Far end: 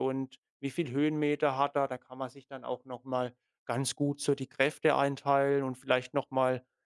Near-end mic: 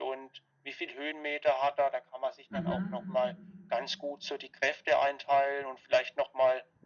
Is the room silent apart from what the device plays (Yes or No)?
No